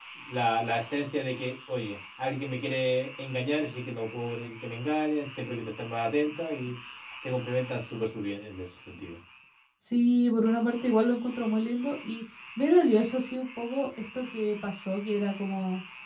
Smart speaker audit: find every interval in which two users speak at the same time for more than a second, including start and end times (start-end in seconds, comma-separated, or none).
none